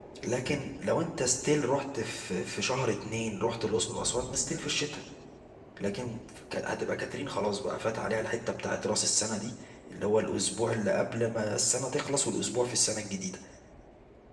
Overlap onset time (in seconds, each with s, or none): none